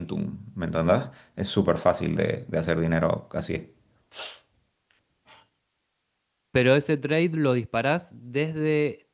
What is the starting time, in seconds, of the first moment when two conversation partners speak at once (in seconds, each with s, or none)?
none